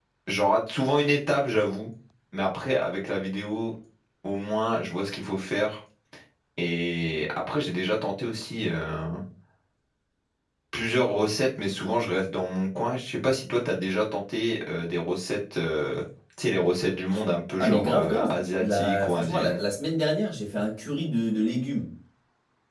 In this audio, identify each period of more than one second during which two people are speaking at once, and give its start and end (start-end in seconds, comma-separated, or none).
17.6-19.6